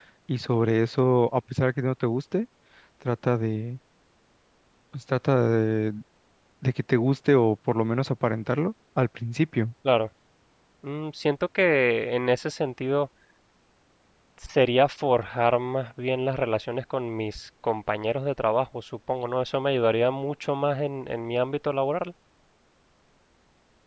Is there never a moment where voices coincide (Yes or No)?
Yes